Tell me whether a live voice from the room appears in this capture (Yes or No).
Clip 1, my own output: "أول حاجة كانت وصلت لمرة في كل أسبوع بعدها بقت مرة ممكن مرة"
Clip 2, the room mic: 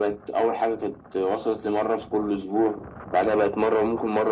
No